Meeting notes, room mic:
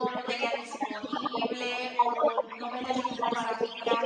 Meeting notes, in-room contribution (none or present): present